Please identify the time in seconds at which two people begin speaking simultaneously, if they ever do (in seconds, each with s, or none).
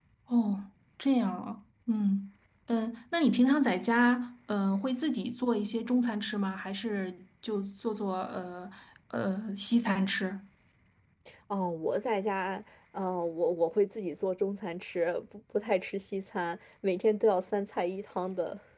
none